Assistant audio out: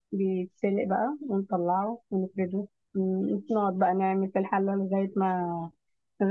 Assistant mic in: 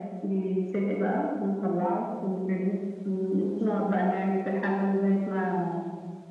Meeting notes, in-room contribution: none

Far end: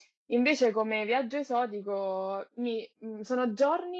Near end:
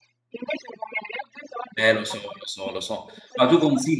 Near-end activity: present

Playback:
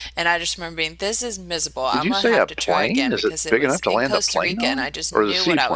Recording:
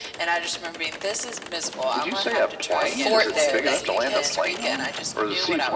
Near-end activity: present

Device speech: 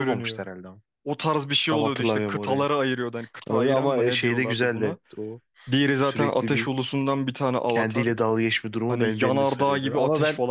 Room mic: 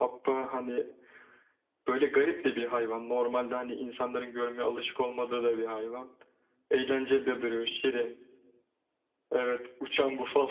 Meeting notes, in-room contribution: present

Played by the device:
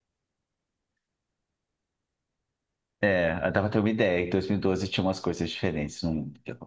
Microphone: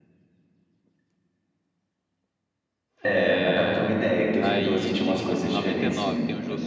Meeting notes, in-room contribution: present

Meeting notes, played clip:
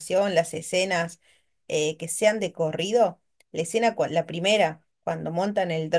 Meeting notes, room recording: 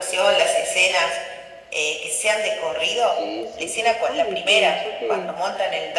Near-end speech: present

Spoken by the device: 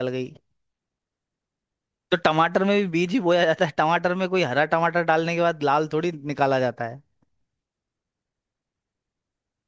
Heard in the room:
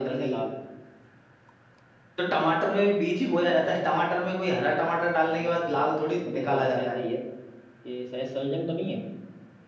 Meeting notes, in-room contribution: present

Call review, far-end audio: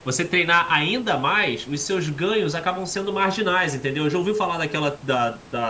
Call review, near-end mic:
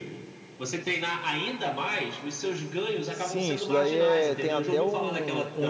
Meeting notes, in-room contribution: present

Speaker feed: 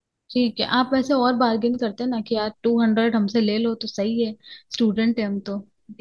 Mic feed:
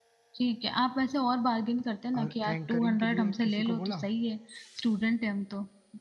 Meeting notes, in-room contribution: present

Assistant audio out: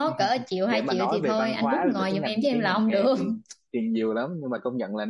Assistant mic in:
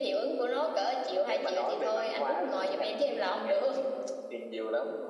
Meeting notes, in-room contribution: none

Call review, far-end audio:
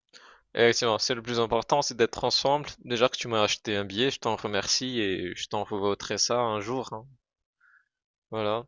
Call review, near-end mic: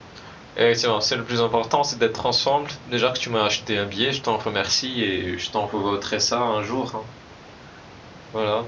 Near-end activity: none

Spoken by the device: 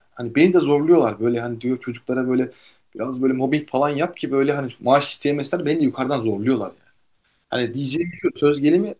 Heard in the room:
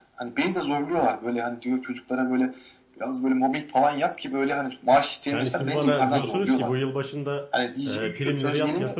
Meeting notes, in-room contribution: present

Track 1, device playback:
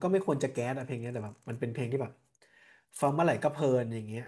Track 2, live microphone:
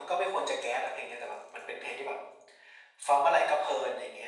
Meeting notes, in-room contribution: none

